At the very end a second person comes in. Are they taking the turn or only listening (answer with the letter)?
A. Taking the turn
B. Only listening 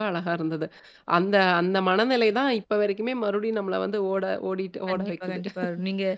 A